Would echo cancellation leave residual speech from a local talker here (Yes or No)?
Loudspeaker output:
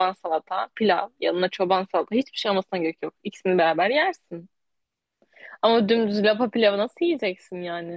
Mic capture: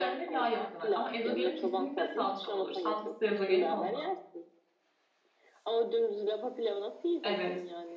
Yes